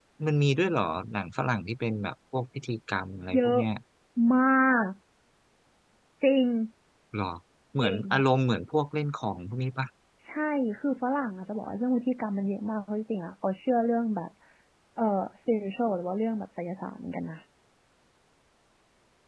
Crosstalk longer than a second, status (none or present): none